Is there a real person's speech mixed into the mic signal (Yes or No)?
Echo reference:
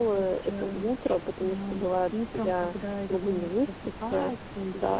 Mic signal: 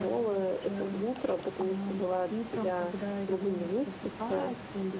No